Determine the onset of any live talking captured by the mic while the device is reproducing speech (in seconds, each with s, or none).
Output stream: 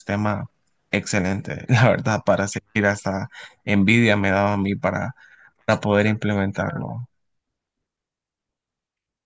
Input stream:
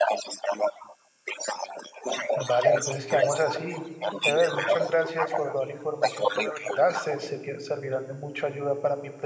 2.3 s